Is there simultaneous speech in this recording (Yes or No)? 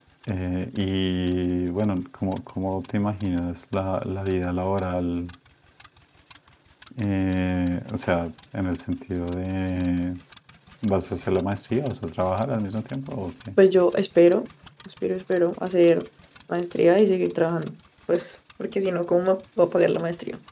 No